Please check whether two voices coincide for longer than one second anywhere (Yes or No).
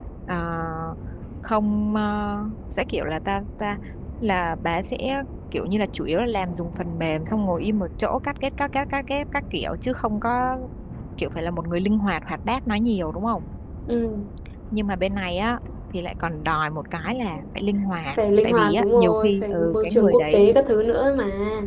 Yes